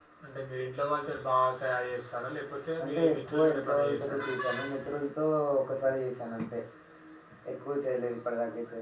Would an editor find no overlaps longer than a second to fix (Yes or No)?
No